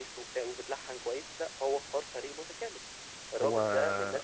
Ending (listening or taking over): listening